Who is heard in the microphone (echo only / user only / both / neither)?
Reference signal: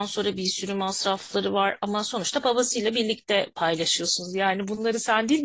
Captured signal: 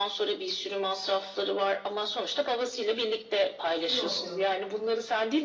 both